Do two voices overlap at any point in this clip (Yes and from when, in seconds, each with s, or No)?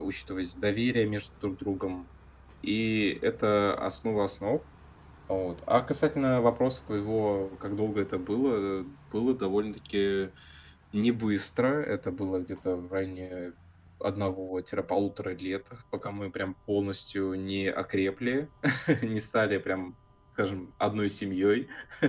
No